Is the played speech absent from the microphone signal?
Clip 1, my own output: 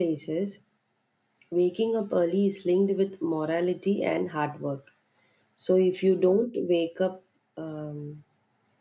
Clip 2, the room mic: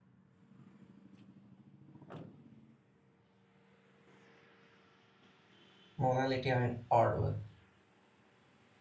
Yes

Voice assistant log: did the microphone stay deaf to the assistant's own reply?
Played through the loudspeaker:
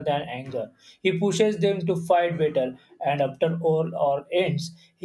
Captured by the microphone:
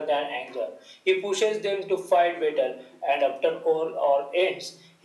No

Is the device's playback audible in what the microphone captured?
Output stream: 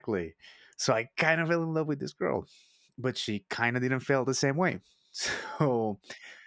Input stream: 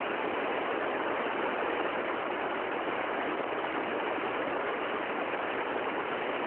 No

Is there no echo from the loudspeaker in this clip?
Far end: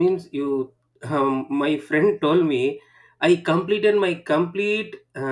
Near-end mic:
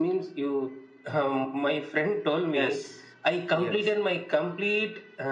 No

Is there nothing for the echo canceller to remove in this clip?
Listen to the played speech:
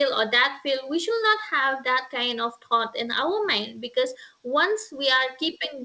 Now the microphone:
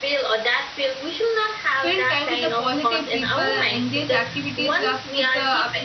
No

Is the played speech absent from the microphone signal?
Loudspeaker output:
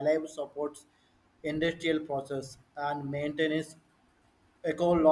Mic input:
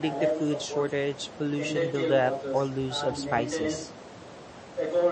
No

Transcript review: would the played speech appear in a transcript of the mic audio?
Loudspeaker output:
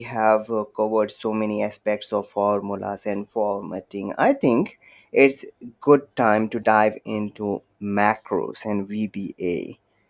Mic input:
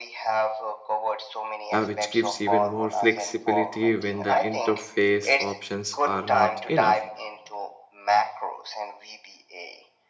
Yes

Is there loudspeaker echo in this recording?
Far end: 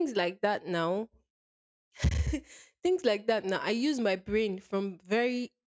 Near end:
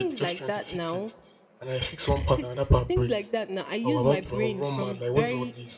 Yes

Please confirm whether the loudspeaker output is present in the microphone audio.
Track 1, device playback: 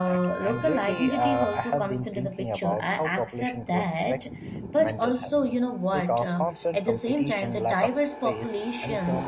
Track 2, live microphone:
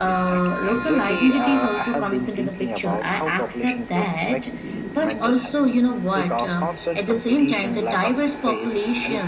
Yes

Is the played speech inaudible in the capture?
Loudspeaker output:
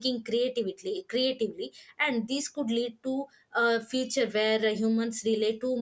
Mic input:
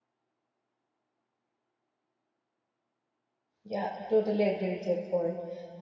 Yes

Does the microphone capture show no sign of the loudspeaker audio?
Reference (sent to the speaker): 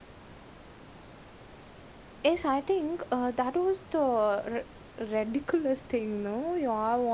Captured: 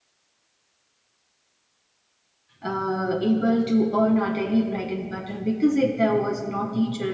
Yes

